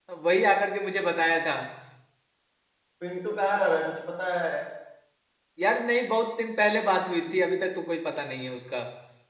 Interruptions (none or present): none